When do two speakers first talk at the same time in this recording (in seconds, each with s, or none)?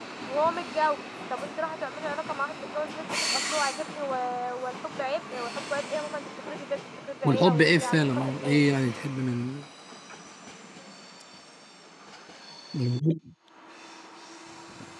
7.2 s